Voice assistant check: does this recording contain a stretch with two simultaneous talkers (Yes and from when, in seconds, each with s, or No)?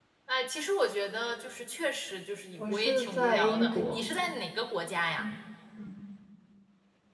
Yes, from 2.6 s